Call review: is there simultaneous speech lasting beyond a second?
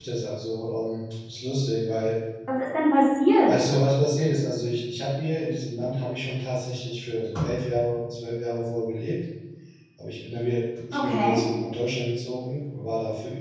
No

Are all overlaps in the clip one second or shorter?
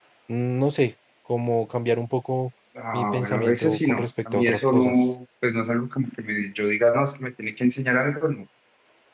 No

